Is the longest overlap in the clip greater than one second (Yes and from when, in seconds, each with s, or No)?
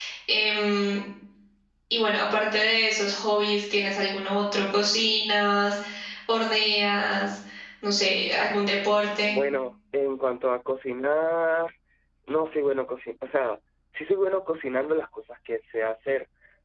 No